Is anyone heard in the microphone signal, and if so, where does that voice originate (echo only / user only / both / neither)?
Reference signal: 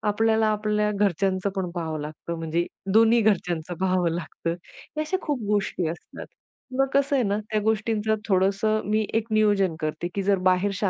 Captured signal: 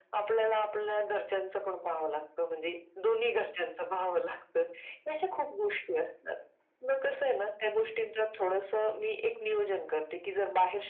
echo only